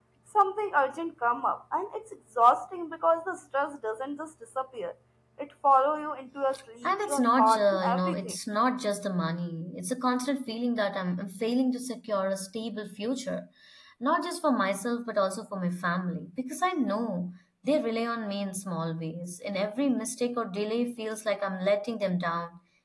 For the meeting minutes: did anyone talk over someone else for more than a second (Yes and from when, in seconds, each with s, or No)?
Yes, from 6.8 s